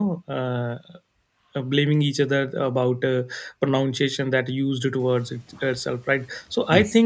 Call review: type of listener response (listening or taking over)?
listening